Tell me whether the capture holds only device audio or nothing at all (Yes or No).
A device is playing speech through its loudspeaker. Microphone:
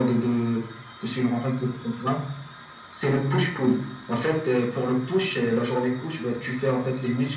Yes